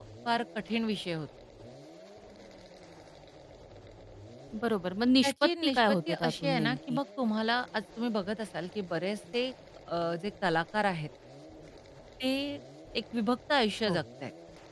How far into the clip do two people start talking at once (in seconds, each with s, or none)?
5.2 s